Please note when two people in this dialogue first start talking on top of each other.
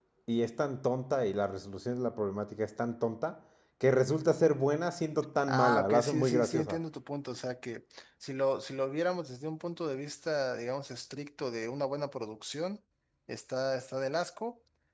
5.5 s

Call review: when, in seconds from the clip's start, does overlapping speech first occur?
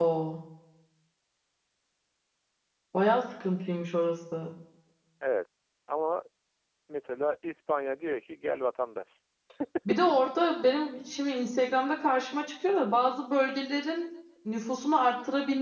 none

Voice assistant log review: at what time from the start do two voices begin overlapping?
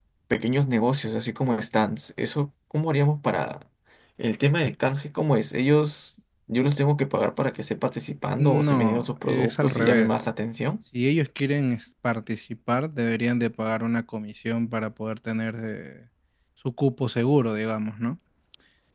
8.4 s

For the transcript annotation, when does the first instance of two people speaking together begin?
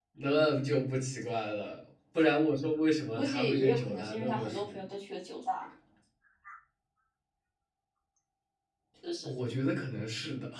3.2 s

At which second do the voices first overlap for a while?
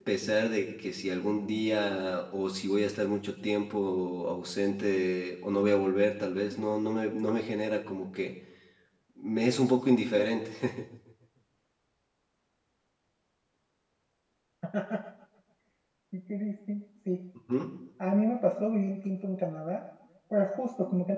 none

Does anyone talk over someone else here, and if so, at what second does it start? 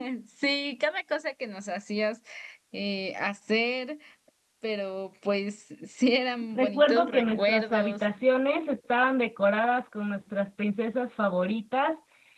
6.5 s

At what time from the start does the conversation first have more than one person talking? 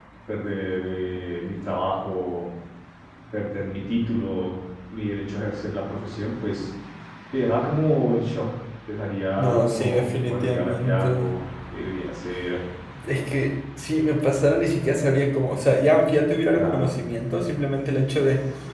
9.4 s

